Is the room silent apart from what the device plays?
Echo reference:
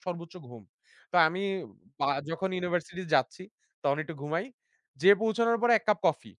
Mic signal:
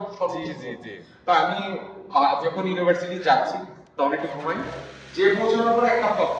No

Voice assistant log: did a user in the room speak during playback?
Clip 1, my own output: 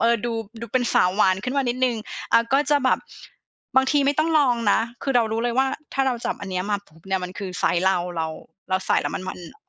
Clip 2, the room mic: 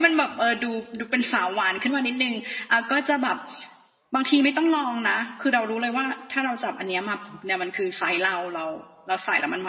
No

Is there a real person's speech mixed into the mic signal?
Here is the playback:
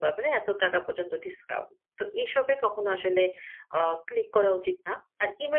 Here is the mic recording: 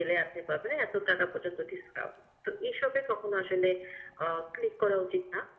No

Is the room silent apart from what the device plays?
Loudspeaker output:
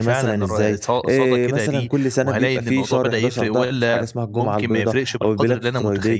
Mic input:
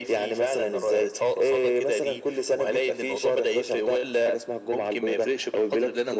Yes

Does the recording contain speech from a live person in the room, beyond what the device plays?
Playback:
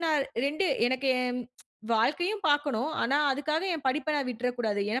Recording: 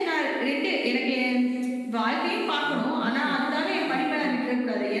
Yes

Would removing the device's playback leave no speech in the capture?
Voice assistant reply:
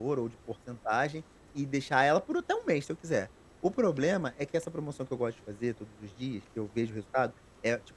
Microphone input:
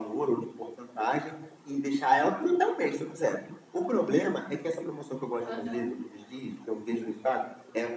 No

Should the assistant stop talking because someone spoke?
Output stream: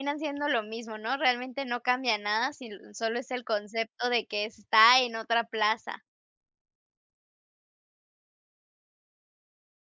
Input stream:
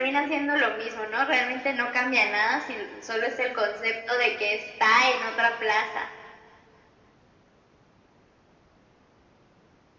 No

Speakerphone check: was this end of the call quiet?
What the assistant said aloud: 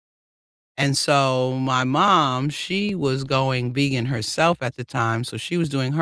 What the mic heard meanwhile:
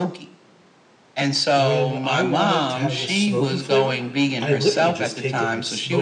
No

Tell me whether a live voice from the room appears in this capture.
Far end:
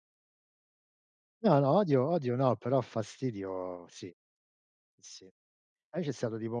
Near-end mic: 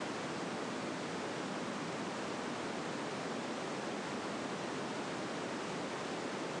No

